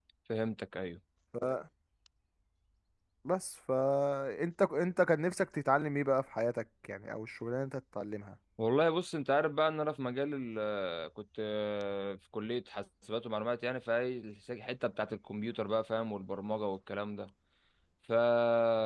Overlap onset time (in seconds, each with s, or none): none